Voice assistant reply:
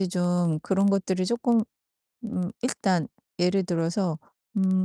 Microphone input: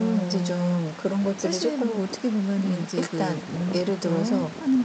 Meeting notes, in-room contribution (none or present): present